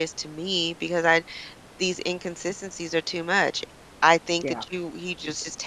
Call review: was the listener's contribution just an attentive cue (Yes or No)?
Yes